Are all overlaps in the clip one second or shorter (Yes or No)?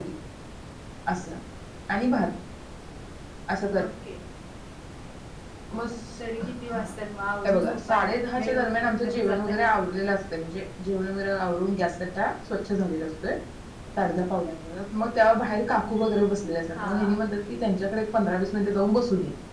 No